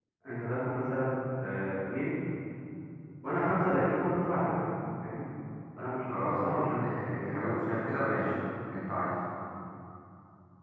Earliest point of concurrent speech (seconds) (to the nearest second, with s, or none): 6 s